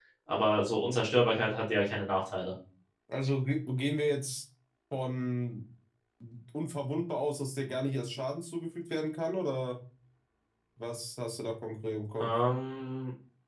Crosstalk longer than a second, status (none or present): none